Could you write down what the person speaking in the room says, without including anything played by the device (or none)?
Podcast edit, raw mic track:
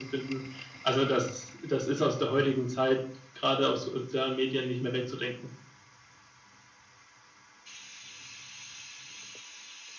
none